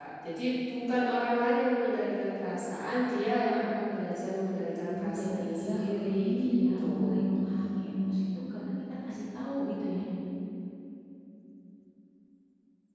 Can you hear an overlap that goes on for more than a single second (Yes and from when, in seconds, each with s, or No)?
Yes, from 4.9 s